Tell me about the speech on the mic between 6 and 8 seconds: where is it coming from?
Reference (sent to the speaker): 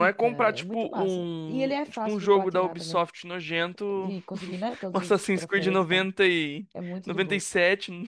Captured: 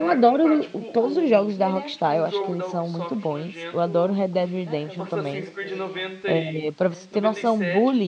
both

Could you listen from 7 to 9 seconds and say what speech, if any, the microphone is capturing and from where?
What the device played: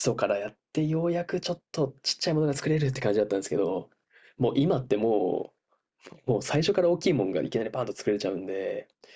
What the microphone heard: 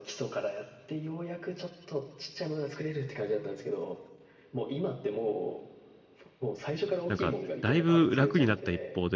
both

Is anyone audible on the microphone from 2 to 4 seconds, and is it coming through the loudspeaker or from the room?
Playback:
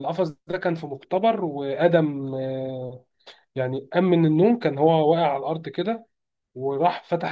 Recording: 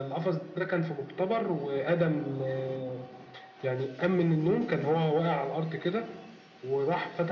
echo only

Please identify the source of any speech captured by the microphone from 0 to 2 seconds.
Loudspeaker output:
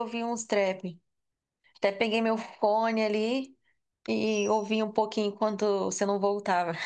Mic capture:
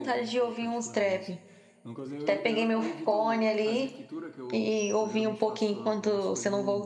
both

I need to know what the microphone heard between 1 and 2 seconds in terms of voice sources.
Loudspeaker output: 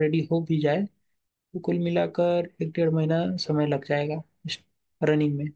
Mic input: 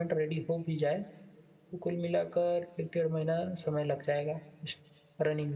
echo only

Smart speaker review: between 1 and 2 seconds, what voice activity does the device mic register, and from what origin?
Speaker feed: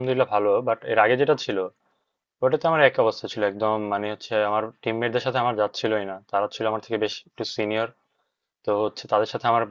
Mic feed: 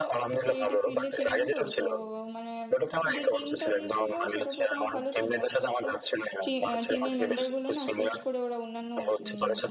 both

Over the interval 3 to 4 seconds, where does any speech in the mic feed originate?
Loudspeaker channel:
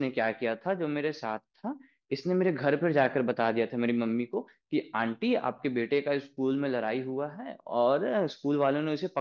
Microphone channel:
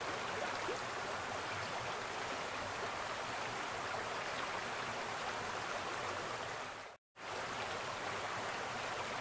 neither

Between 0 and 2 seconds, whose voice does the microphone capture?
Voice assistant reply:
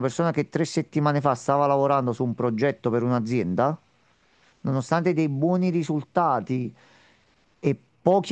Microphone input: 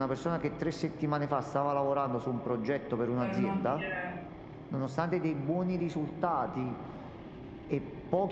echo only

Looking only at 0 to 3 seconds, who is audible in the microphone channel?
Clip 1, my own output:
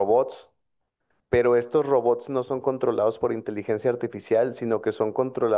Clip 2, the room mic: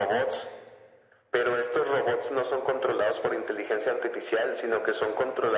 echo only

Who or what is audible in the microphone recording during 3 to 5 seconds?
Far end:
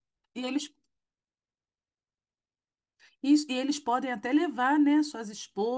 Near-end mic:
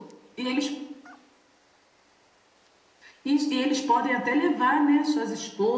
echo only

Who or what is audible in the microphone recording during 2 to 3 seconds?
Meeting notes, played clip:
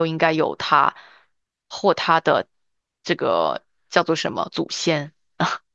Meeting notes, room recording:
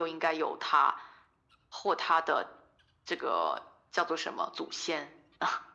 echo only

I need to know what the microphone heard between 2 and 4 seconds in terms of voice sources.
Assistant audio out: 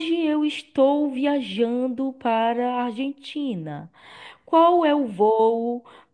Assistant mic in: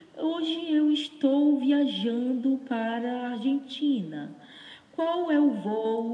echo only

